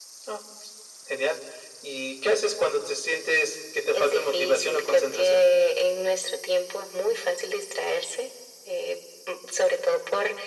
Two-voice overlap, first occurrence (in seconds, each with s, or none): 3.9 s